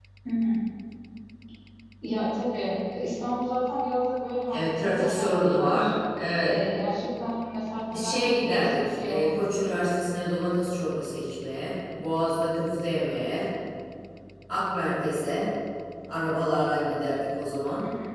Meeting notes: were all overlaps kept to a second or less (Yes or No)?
No